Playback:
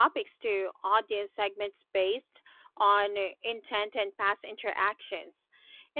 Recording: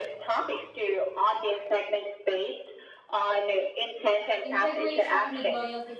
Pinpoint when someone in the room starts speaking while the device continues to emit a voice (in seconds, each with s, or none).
4.4 s